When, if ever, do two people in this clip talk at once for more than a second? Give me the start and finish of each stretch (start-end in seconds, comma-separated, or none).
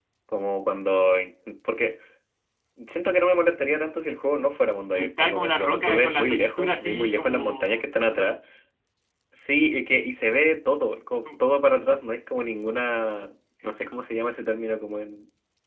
5.0-7.8